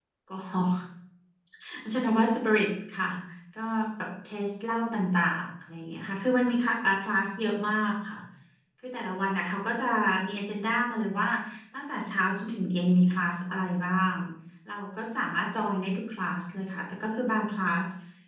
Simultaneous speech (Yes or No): No